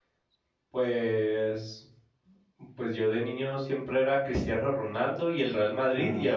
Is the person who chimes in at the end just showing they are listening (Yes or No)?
Yes